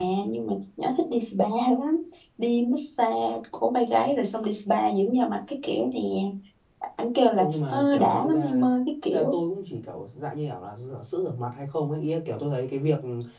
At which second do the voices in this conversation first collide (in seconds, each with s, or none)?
7.3 s